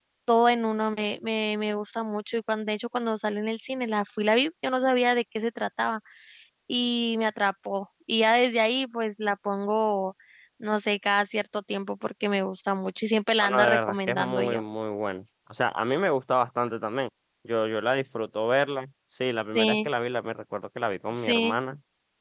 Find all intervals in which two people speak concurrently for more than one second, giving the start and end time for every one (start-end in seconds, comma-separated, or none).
13.4-14.6